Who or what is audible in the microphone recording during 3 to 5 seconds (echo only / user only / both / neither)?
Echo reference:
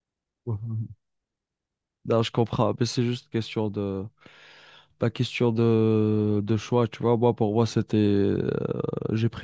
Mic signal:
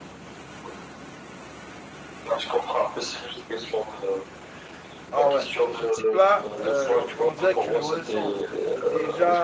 echo only